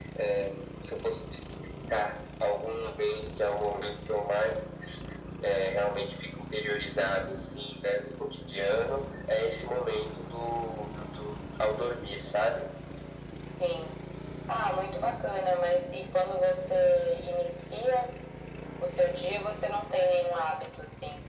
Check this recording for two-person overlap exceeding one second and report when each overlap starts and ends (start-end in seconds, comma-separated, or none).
none